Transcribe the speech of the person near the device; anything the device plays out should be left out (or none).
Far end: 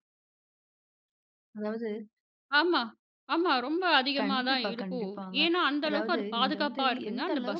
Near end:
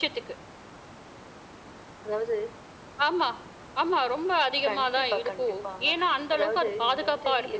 none